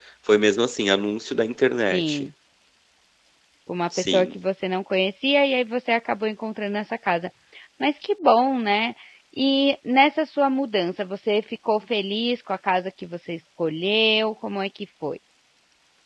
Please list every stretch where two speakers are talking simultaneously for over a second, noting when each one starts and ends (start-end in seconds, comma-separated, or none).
none